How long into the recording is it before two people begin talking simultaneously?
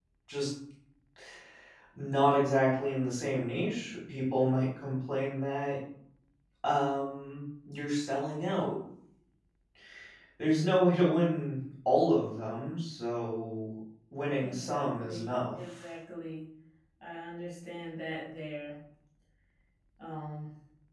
14.4 s

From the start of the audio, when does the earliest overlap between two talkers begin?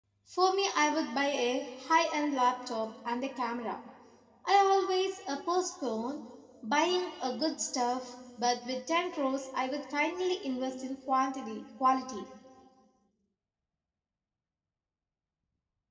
none

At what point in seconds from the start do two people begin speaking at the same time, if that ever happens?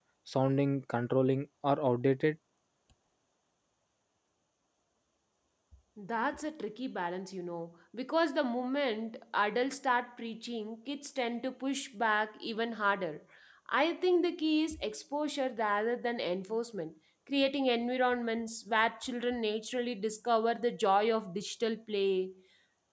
none

